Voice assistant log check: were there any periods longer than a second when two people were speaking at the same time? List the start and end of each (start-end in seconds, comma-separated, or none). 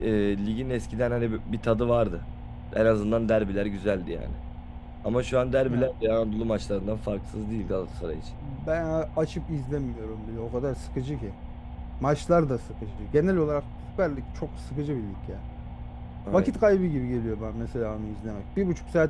none